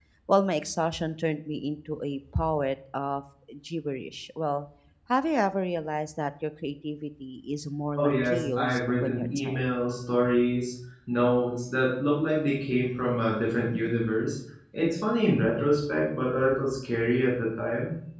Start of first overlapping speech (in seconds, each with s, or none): 8.0 s